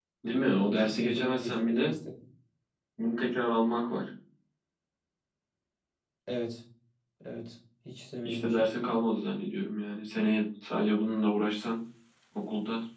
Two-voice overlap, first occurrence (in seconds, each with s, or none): 0.7 s